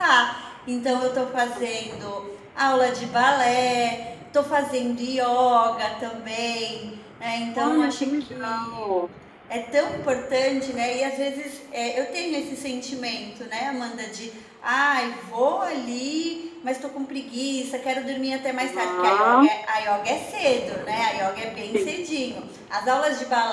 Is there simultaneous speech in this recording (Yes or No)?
Yes